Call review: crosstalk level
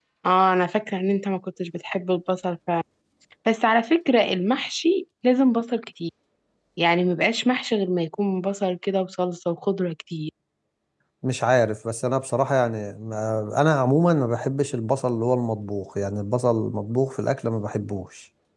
none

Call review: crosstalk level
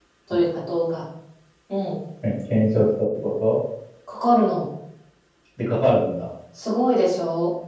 none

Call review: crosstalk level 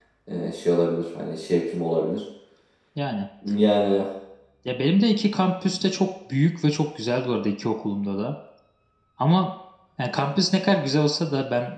none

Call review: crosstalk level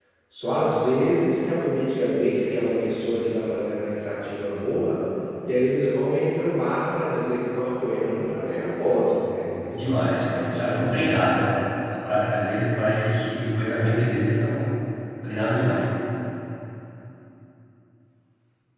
present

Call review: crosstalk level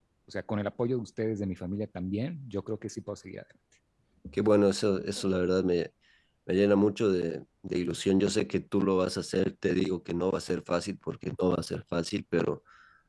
none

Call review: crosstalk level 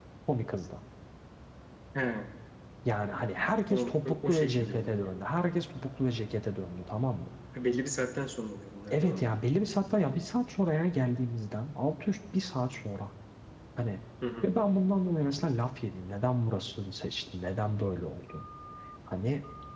present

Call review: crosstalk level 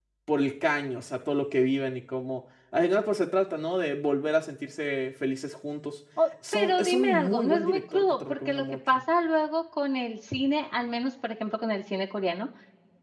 present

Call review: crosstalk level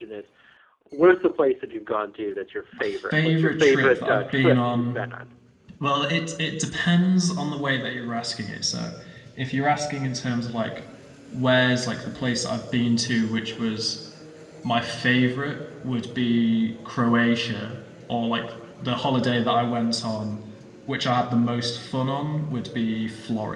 present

